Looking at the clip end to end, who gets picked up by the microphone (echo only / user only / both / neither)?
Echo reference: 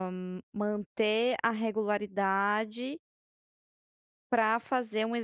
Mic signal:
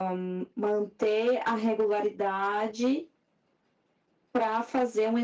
echo only